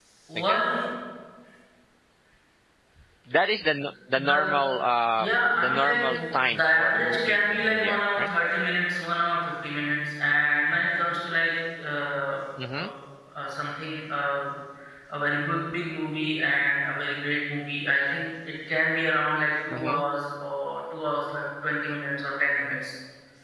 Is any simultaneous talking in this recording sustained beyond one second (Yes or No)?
Yes